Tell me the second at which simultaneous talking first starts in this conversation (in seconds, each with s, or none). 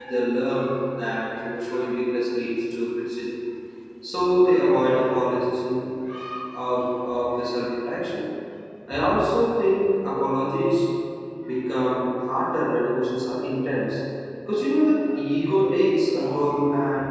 none